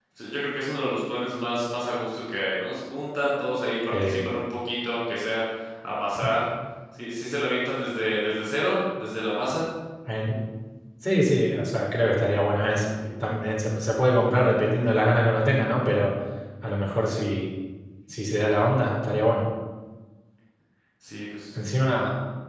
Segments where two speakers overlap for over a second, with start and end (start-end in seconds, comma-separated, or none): none